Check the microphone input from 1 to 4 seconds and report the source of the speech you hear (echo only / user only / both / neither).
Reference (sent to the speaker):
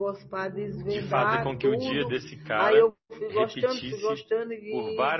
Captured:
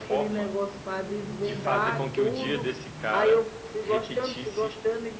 echo only